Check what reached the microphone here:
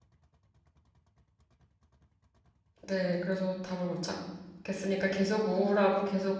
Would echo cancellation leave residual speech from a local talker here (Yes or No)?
Yes